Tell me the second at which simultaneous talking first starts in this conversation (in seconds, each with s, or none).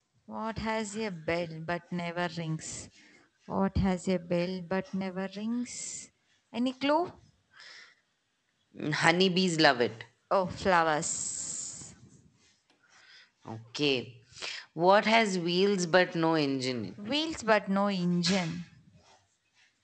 none